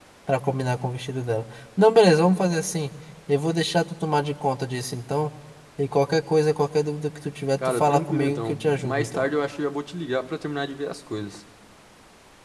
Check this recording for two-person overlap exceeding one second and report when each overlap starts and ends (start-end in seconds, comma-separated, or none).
7.6-9.3